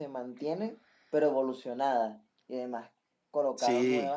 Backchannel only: Yes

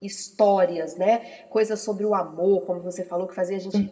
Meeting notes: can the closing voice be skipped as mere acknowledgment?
Yes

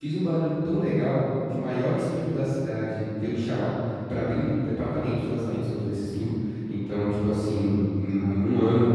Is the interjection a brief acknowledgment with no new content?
Yes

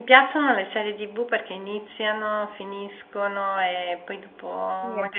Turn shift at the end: No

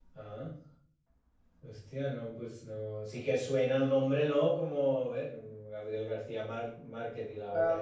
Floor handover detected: Yes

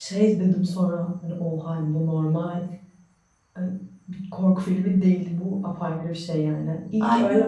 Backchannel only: Yes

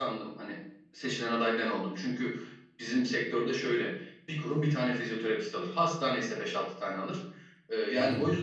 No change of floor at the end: Yes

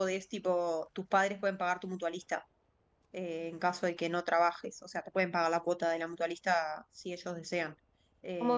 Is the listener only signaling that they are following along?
Yes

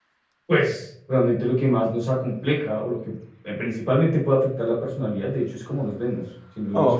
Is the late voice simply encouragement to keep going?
No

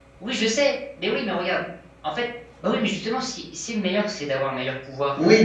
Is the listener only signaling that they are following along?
No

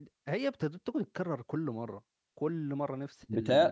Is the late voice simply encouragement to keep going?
No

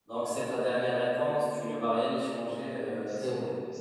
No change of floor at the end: No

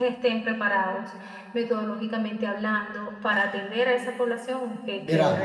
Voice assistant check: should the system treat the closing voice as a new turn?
Yes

